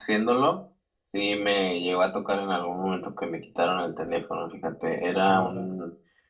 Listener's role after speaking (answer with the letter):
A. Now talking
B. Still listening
B